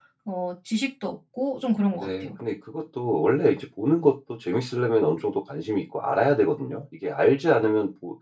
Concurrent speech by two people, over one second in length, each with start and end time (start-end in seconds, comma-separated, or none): none